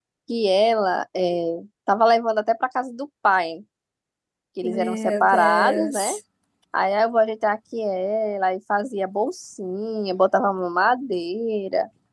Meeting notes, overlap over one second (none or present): present